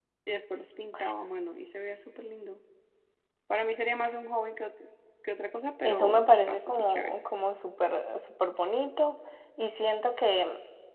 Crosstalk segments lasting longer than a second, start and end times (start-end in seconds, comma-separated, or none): 5.8-7.2